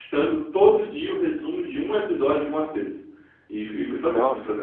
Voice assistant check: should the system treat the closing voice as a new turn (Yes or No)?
No